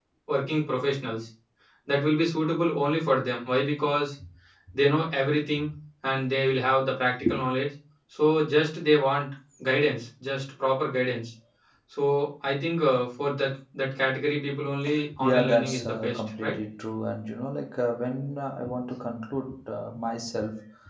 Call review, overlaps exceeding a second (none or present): present